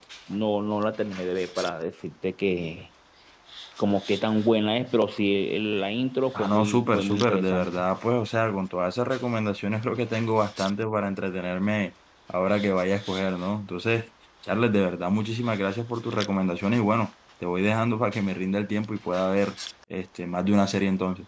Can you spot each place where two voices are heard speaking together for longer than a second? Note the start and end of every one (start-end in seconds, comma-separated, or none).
6.3-7.8